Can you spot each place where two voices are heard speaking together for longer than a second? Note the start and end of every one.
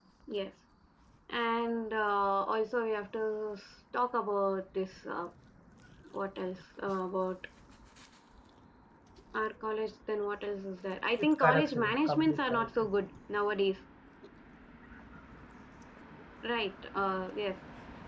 11.2-12.7

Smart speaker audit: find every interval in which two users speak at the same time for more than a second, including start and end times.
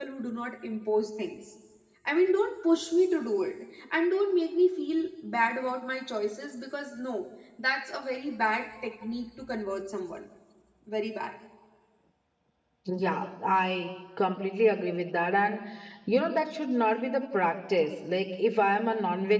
none

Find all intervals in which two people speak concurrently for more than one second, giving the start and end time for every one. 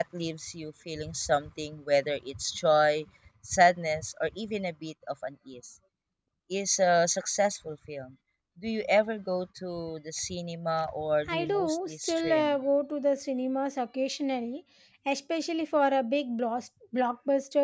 11.3-12.6

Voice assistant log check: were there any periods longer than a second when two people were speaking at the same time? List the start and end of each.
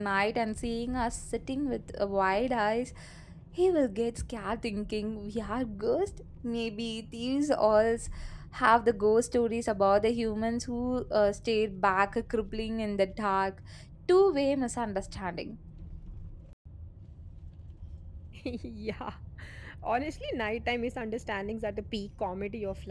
none

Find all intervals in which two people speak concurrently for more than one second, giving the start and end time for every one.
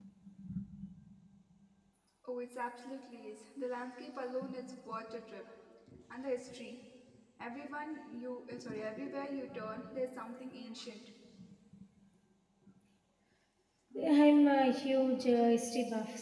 14.1-15.3

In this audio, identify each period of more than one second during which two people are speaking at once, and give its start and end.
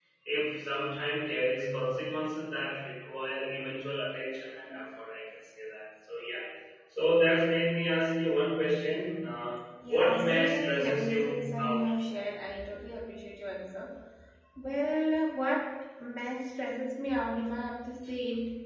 9.9-11.9

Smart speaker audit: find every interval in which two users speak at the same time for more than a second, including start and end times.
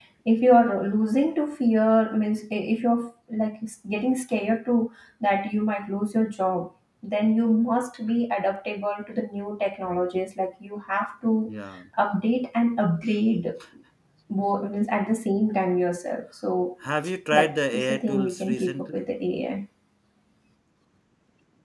17.4-19.1

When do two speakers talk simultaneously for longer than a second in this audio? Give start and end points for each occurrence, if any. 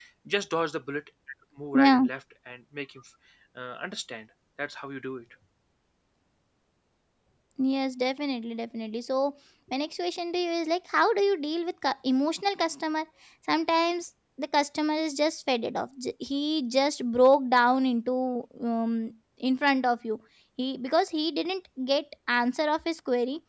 none

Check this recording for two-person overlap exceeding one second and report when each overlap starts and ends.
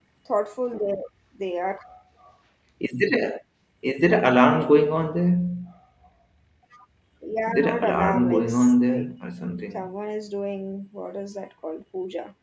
7.5-9.1

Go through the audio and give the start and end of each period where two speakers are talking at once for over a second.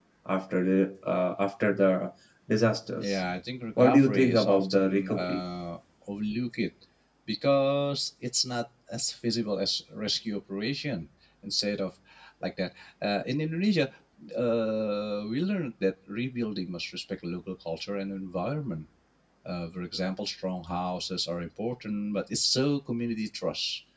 3.8-5.4

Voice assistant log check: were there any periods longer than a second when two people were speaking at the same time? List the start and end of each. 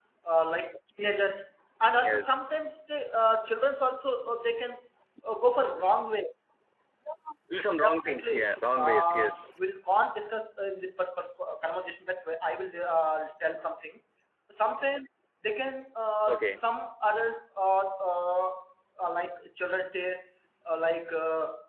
7.8-9.4

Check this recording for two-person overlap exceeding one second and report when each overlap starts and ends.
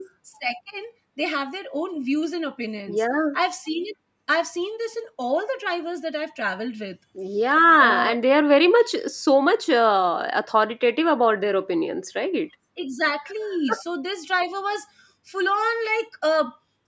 none

